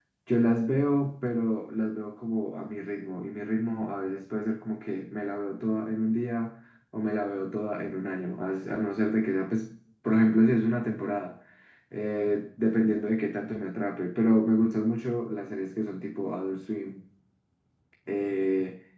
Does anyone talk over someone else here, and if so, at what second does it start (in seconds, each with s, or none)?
none